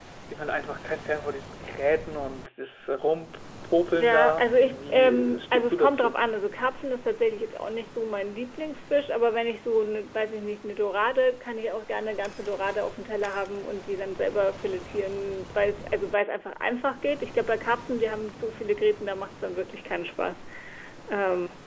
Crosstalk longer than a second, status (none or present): present